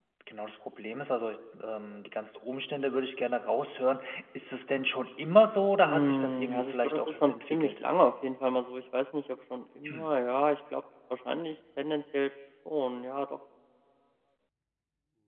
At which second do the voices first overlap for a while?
5.8 s

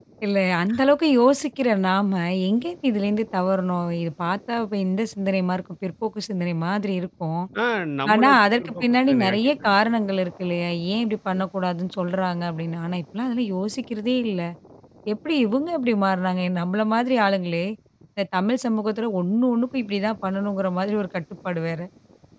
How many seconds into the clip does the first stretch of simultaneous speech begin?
8.1 s

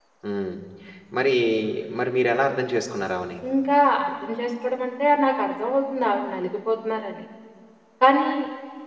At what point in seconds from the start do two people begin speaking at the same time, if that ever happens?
none

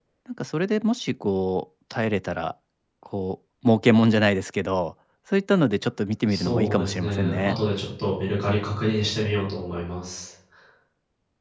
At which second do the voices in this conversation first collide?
6.3 s

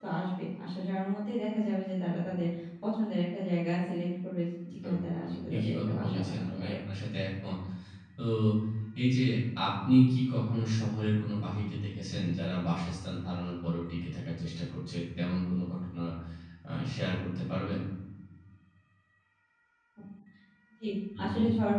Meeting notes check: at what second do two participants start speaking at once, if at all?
4.7 s

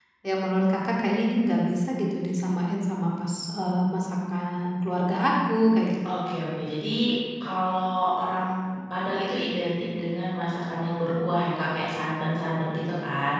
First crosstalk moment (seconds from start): none

